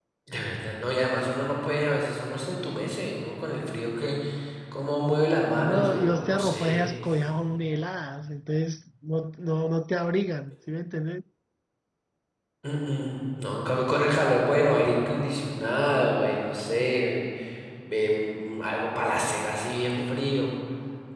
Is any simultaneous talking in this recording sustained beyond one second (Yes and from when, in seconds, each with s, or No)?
Yes, from 5.5 s